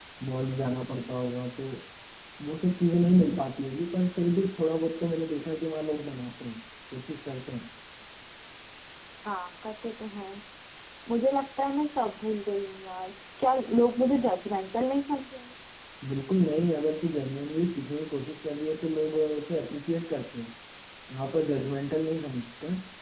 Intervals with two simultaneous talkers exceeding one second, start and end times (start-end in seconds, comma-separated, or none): none